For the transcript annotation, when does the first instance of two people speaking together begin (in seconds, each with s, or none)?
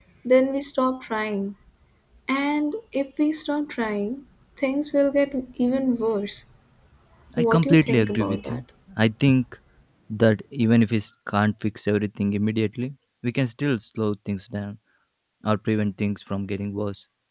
7.4 s